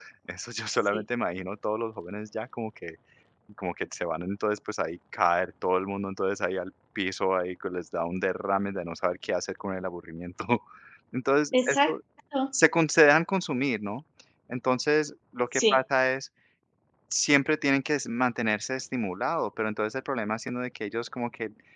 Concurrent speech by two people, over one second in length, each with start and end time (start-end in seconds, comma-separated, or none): none